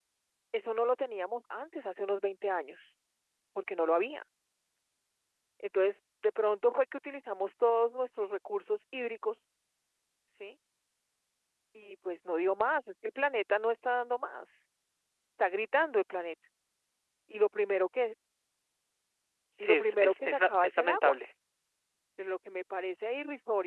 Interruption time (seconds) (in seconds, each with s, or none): 19.6 s